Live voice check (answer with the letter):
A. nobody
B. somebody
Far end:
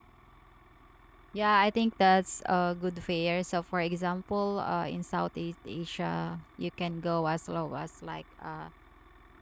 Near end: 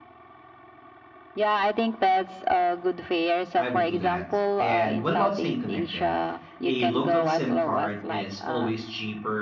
B